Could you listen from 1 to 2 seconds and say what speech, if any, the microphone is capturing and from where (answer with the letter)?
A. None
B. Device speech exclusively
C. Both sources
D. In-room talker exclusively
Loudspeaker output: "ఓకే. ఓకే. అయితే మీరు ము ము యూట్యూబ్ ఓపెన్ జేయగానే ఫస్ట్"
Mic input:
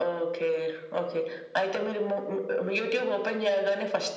B